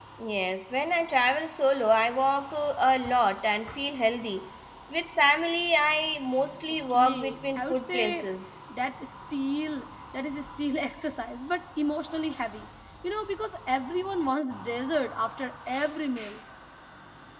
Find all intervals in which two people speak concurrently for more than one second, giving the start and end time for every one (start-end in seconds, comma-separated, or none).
6.9-8.2